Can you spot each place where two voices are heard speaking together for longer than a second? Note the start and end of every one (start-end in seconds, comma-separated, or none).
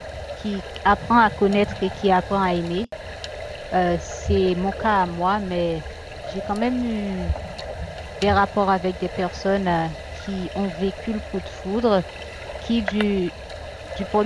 none